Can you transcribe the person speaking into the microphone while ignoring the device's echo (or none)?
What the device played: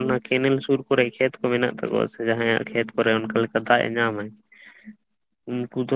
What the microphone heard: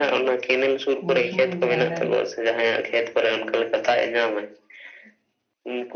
ᱩᱱ ᱥᱚᱢᱚᱭ ᱡᱟ ᱦᱟᱱᱮ